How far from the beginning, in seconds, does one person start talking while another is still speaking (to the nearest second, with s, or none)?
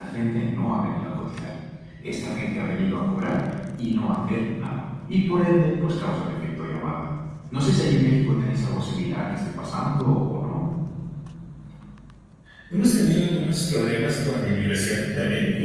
none